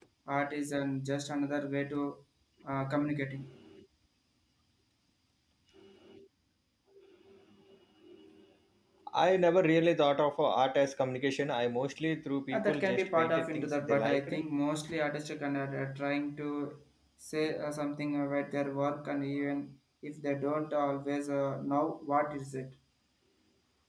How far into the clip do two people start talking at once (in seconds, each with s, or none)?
12.5 s